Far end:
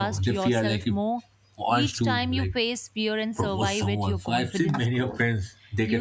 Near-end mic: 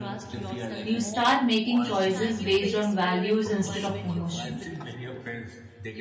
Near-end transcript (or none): You start making choices based on values instead of emotions.